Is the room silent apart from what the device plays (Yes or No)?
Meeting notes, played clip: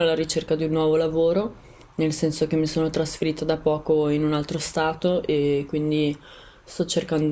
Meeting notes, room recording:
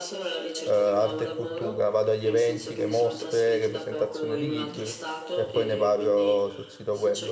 No